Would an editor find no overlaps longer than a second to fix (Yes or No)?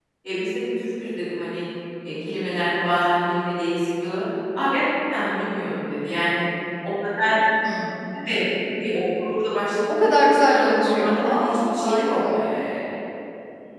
No